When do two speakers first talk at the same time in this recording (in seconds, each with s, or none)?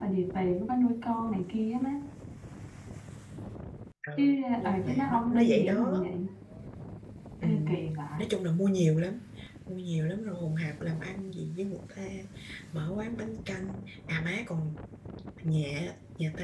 4.2 s